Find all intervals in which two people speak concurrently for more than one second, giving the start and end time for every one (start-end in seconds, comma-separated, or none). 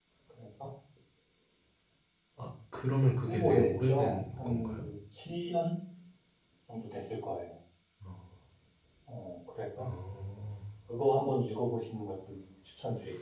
3.2-4.8